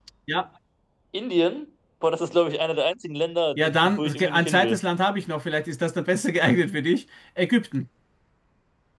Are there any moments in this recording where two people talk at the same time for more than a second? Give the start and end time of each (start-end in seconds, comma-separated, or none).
3.6-4.8